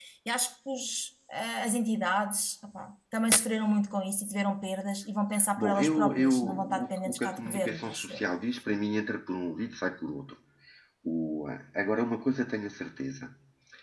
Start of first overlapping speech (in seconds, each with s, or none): 5.6 s